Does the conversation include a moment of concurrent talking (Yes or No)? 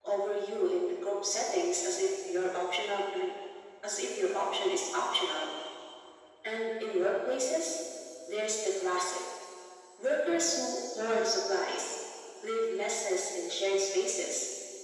No